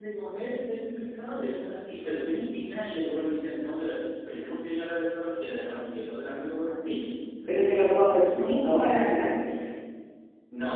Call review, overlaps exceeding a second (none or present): none